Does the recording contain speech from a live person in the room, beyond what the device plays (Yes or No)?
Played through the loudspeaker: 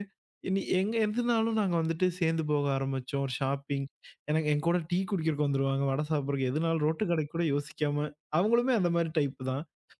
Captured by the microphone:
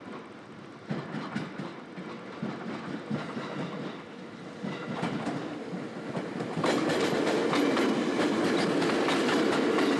No